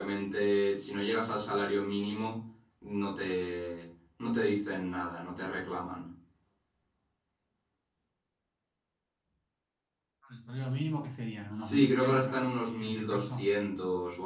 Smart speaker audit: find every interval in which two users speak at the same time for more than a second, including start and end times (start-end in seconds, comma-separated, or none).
11.6-13.4